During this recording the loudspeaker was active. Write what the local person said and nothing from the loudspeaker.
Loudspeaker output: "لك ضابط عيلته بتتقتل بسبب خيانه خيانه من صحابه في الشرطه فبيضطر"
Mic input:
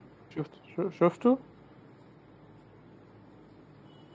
شفت شو- شفته؟

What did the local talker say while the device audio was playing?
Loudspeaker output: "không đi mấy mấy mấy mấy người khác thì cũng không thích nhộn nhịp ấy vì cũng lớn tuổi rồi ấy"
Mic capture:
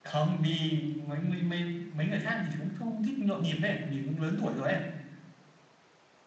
none

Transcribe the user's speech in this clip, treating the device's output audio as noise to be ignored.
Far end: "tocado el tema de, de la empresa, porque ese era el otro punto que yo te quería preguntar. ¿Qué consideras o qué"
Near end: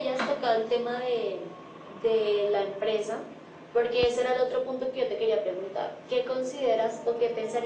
none

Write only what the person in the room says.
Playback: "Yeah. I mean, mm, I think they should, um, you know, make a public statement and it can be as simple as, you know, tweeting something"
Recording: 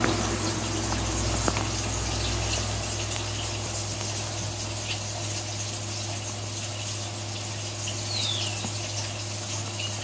none

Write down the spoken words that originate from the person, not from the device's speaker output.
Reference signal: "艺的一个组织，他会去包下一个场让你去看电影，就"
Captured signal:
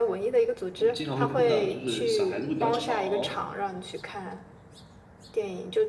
嗯经常会碰到，就是小孩子会比较吵，

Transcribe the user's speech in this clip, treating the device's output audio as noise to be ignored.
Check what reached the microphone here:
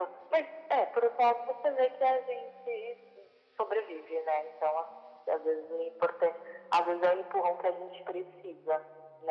none

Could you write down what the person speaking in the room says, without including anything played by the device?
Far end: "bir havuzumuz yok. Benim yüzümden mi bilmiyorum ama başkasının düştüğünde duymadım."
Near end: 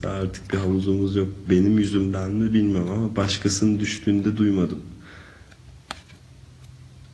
none

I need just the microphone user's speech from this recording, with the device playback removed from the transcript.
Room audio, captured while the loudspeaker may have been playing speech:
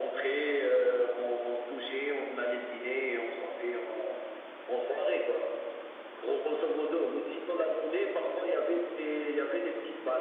none

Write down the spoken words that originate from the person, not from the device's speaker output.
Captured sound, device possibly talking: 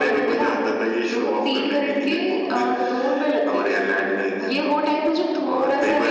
none

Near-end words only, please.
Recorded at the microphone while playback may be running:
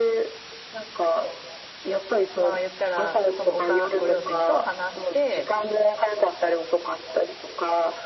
まあ言ったら、そのおかご両親と話して、

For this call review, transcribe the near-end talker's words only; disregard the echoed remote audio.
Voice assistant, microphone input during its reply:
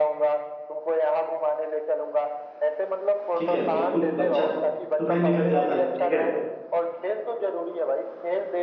ठीक है बिल्कुल बच्चा सुबह निकल जाता है ठीक है

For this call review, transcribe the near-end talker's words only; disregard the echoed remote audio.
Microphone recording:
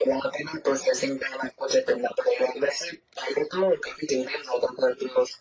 none

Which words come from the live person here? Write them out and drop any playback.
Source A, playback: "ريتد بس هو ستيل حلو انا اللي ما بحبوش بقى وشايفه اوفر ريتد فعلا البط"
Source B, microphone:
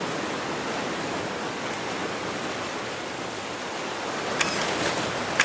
none

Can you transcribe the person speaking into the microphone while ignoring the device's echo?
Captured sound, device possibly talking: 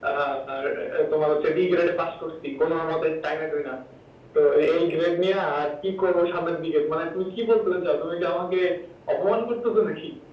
none

